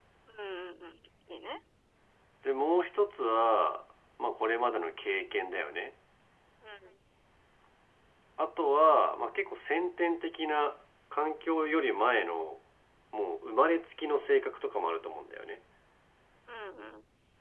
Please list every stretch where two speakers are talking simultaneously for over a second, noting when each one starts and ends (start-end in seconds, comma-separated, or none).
none